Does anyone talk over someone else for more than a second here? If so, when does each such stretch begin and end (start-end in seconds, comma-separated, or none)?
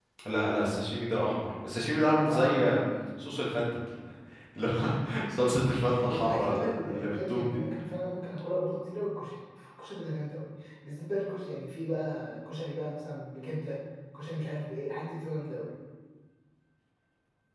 6.1-7.6